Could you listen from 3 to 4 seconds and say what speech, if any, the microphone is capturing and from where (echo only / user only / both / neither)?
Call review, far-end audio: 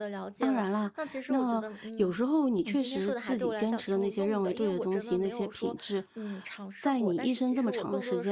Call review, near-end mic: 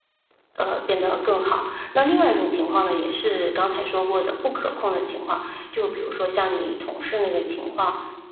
user only